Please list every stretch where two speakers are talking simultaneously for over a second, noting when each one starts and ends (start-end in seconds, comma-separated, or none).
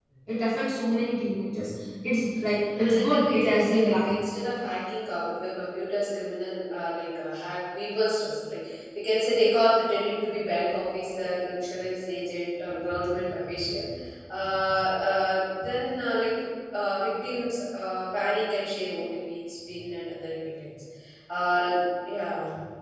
2.8-4.1